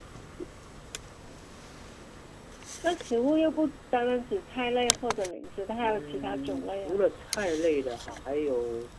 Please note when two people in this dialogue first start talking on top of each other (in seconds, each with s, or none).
5.8 s